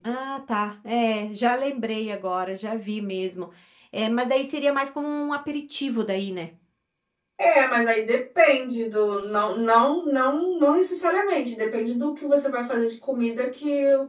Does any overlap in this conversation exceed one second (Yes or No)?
No